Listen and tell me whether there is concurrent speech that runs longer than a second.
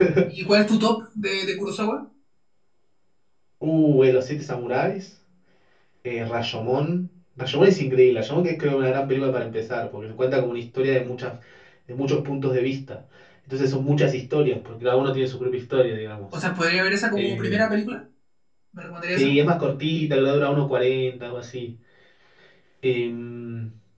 No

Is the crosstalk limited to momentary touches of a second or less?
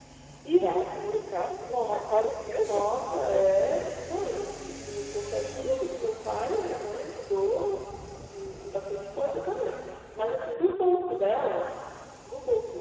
Yes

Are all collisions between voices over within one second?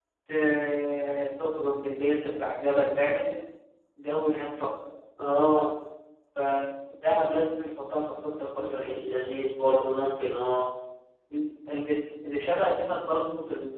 Yes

